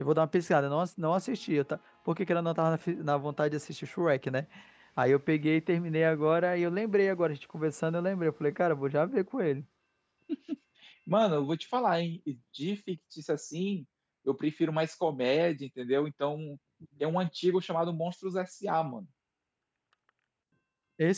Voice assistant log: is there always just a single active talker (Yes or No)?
Yes